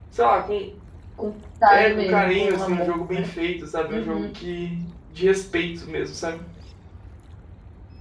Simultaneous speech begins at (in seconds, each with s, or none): 1.7 s